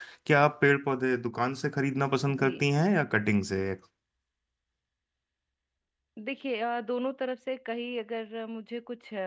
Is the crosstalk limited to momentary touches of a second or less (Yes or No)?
Yes